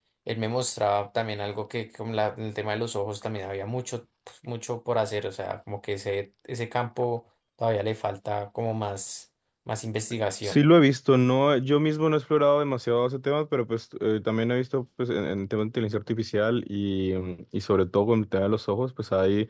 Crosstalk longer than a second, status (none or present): none